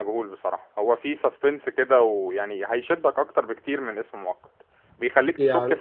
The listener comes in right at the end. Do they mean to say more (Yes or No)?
No